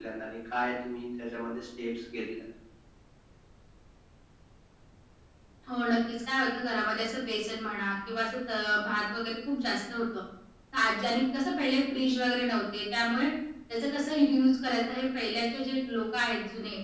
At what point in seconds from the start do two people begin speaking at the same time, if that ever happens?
none

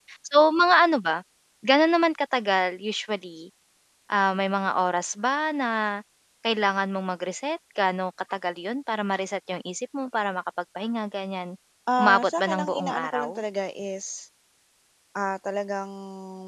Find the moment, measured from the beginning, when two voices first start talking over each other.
12.0 s

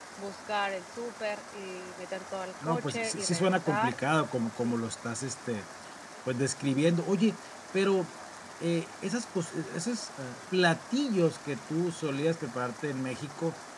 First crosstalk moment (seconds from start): 2.6 s

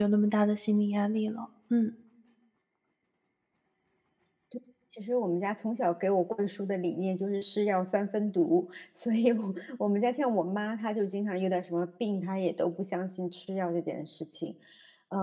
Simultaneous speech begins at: none

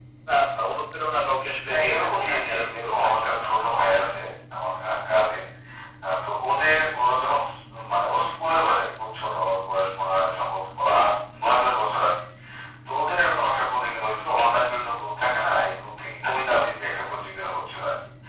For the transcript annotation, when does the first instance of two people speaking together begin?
1.7 s

